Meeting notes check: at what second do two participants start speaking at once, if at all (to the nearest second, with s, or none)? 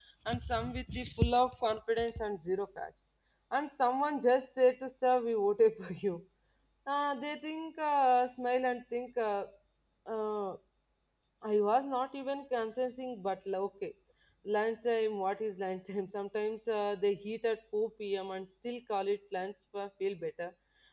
none